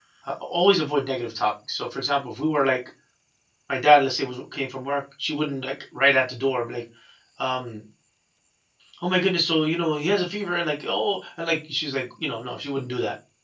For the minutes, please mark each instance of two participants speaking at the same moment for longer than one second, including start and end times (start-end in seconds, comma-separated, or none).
none